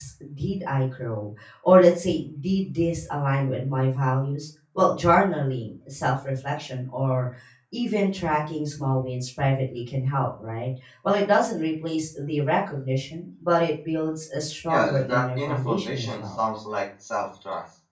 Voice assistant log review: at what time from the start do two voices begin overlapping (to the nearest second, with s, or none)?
15 s